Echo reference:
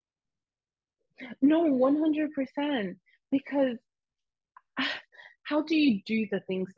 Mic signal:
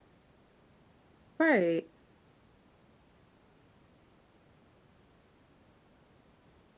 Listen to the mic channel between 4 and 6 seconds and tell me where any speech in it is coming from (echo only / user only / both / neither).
neither